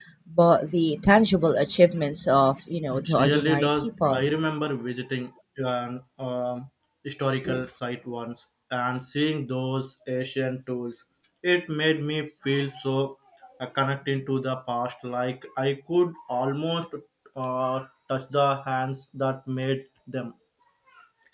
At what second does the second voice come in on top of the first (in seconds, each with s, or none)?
2.9 s